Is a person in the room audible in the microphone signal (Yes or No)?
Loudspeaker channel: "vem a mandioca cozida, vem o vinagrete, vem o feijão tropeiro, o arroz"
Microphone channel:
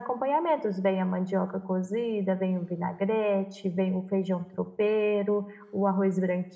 No